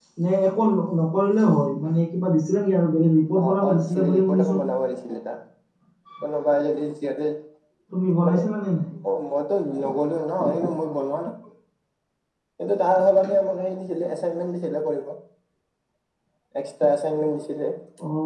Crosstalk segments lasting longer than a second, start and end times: 3.4-4.6

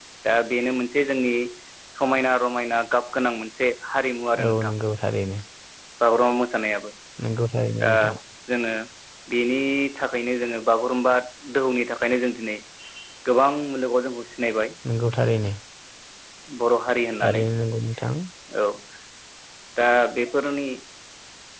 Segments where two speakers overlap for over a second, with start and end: none

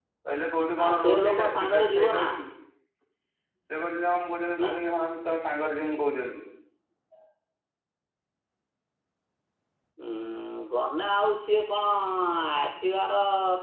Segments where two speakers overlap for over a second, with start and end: 0.8-2.2

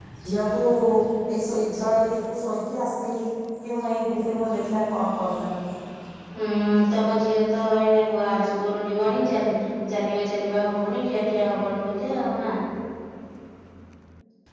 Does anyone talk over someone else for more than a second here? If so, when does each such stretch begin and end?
none

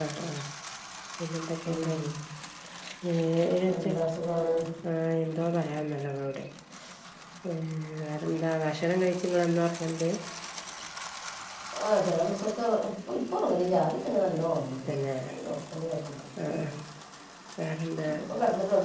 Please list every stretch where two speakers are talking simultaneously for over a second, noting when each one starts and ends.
none

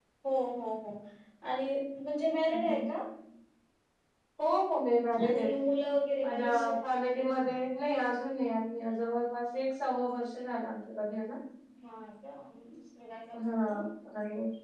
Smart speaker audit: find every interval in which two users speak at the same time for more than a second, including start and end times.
none

